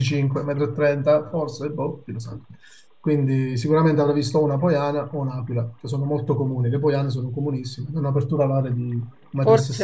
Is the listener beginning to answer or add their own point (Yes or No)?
Yes